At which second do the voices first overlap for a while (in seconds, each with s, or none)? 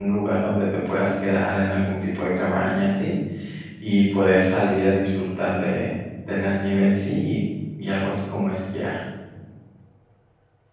none